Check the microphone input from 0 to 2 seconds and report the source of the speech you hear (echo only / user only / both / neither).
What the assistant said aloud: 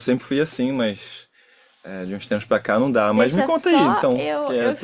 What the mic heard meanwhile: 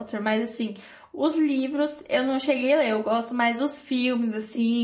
user only